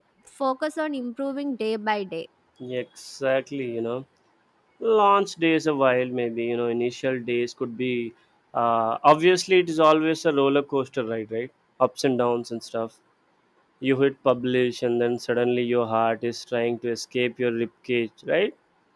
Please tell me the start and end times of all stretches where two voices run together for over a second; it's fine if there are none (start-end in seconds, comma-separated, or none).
none